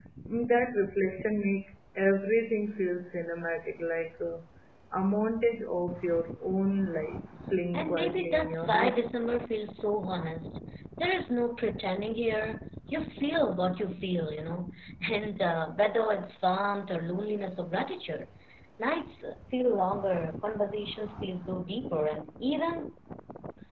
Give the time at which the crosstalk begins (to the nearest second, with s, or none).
8 s